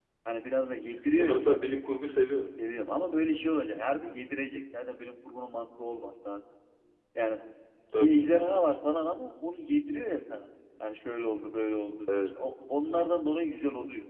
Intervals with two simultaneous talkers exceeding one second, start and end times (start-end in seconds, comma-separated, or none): none